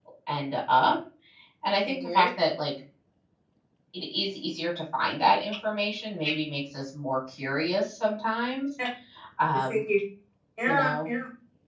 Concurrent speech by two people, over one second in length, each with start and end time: none

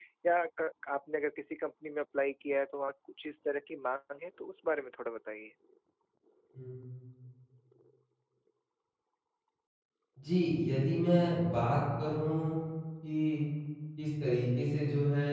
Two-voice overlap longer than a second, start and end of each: none

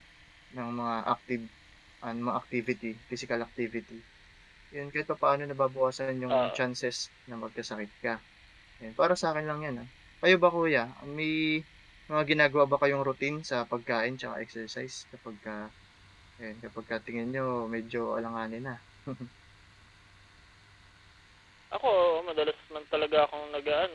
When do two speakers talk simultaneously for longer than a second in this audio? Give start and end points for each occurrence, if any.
none

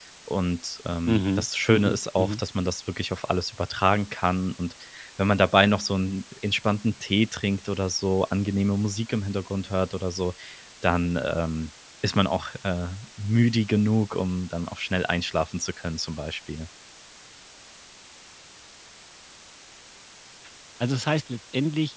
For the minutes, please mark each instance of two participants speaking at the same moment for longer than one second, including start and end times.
1.1-2.4

